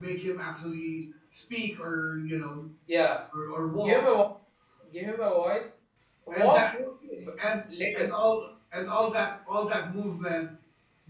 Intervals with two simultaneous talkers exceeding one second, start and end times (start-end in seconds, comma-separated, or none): none